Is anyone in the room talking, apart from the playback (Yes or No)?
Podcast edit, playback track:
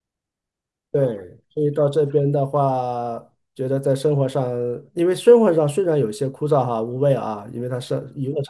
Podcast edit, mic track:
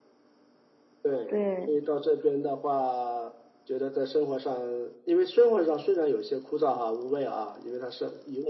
Yes